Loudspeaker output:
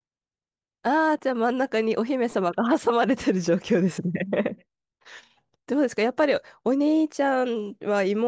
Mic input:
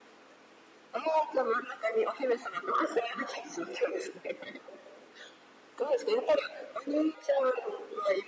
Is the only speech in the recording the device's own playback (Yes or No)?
Yes